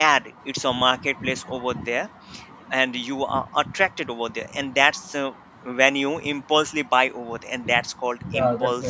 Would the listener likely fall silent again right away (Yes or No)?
No